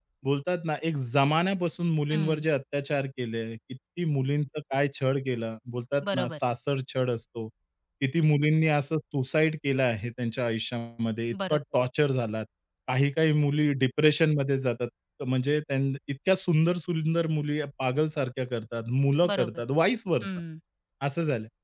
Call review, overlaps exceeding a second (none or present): none